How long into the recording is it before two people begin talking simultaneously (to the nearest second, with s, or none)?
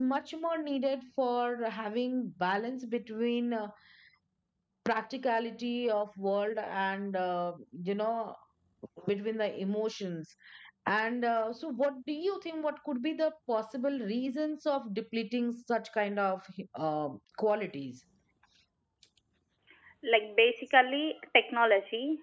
none